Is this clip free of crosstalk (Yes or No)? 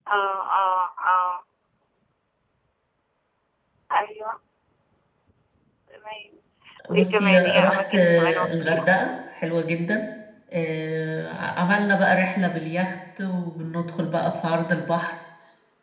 No